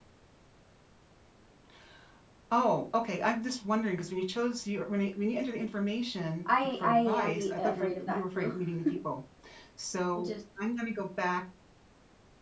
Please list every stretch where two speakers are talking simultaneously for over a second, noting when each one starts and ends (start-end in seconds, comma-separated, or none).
6.6-8.5